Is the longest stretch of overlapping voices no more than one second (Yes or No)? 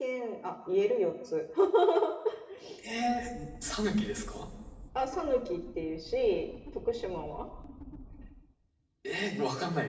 Yes